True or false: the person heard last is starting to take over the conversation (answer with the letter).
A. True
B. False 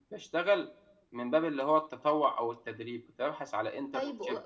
A